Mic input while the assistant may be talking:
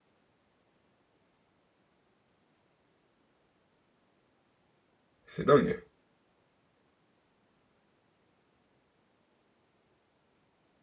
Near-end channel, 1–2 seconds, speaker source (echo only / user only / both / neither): neither